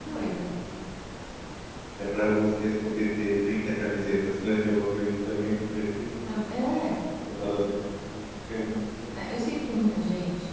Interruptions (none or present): none